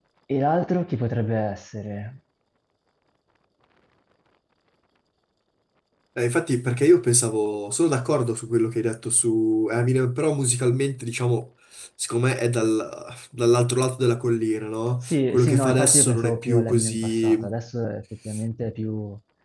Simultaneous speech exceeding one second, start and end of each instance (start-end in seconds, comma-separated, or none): 15.0-17.6